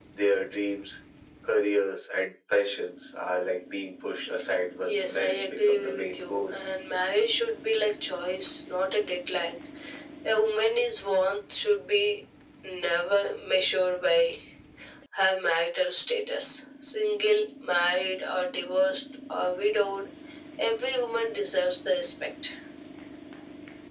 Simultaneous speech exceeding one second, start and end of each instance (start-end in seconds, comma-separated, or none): 4.8-6.5